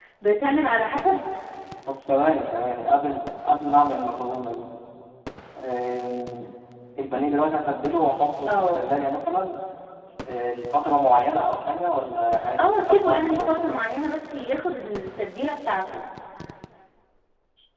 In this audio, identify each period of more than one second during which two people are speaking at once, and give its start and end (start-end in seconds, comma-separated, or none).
12.6-13.9